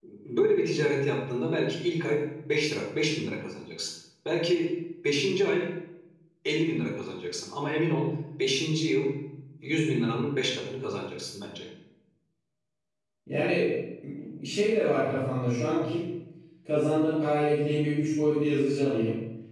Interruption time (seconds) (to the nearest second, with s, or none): none